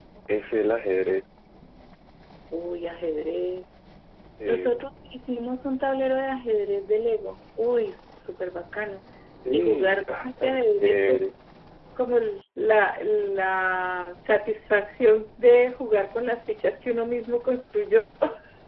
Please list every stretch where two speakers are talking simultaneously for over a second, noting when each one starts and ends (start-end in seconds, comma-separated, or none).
9.5-11.3